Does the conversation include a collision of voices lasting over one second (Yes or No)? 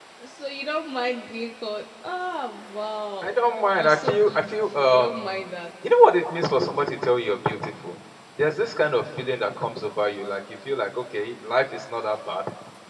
Yes